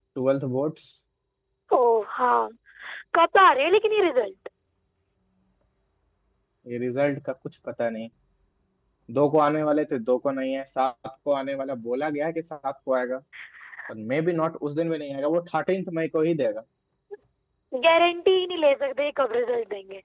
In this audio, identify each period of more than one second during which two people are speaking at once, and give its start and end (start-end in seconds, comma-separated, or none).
none